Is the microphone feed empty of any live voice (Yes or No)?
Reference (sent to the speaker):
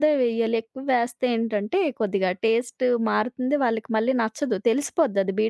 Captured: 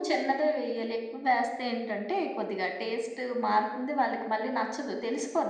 Yes